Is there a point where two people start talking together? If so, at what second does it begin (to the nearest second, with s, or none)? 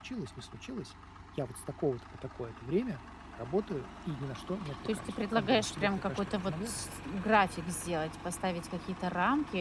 5 s